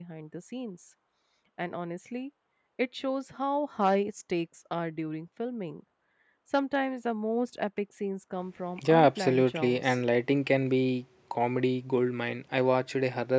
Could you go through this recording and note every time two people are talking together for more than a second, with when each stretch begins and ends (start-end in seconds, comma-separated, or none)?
8.8-10.0